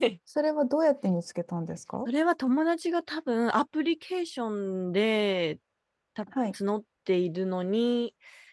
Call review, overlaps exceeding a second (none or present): none